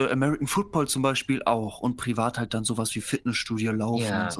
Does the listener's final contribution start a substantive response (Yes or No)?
Yes